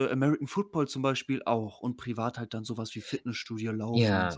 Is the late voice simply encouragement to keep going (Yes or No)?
No